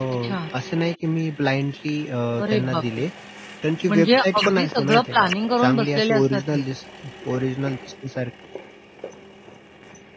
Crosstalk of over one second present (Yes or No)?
Yes